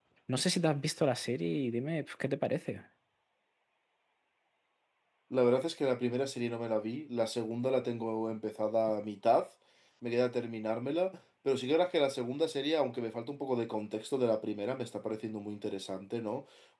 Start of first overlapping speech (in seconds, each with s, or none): none